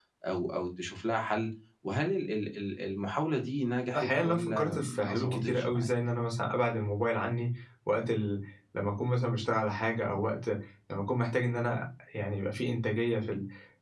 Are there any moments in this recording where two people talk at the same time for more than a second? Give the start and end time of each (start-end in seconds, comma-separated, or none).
4.0-5.9